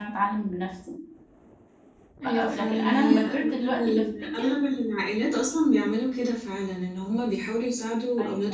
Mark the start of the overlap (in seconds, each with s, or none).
2.2 s